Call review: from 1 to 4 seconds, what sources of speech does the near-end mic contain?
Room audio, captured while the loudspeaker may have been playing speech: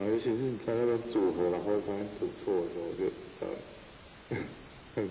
echo only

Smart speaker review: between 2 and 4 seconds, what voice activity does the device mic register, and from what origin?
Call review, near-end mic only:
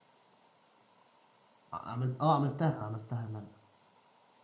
user only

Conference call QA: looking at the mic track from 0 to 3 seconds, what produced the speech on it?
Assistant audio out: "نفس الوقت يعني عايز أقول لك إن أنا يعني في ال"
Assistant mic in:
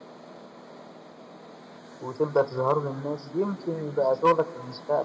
user only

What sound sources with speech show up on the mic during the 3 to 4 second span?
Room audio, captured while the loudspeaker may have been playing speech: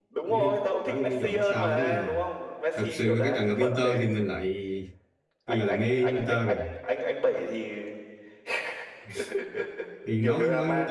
both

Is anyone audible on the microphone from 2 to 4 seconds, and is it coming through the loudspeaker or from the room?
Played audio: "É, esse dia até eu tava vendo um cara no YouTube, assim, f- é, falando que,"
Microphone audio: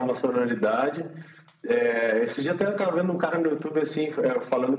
echo only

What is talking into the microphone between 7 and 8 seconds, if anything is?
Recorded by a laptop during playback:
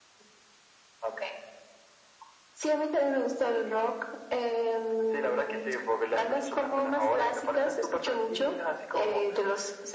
echo only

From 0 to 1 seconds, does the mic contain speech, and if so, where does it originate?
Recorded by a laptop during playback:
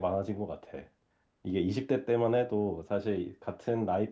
user only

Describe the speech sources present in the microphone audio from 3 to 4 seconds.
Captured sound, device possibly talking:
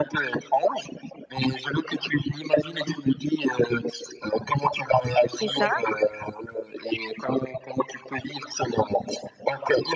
echo only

